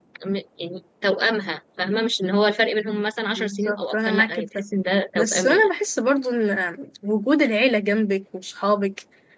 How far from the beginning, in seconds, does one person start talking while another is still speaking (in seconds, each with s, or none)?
3.3 s